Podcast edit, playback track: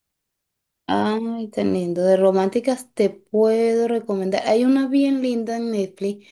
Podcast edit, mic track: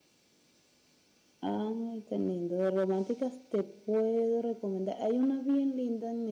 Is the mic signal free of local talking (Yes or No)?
Yes